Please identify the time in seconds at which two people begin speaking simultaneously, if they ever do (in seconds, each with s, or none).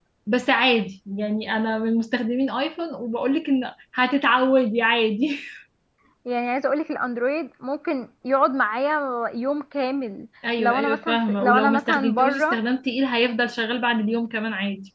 10.4 s